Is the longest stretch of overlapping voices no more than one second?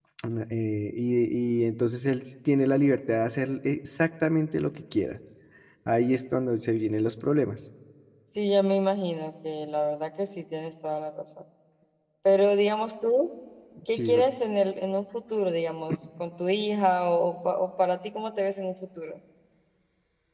Yes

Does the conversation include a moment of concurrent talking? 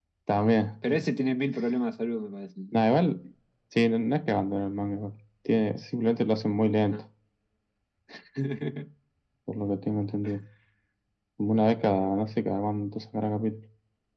No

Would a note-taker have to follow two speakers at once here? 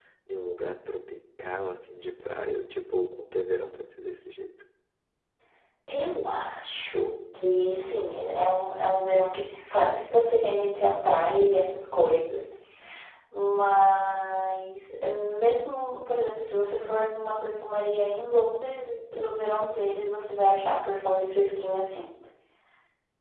No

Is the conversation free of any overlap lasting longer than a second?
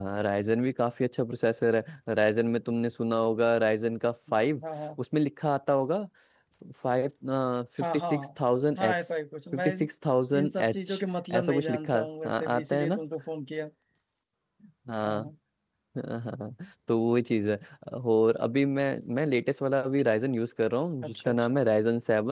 No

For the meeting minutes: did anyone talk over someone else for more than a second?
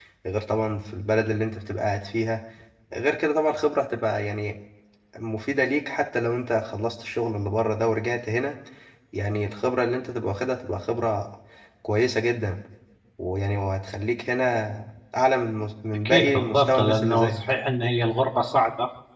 Yes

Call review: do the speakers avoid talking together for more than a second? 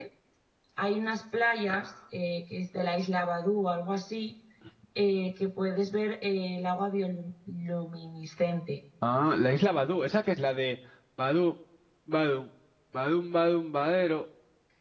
Yes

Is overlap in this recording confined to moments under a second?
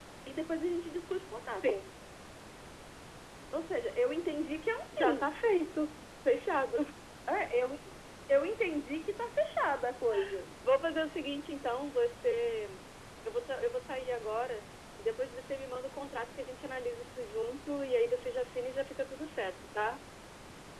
Yes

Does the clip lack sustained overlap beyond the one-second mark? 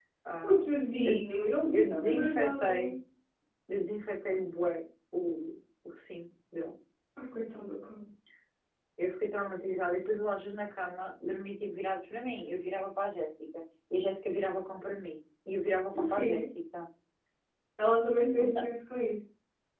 No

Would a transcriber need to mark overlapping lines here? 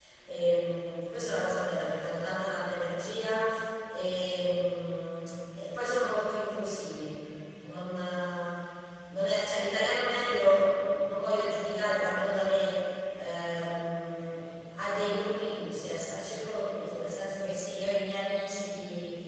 No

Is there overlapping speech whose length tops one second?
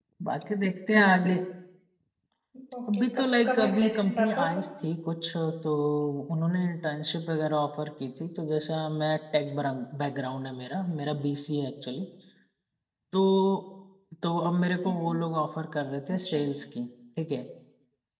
Yes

